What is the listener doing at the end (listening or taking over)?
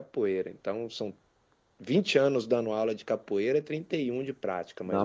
taking over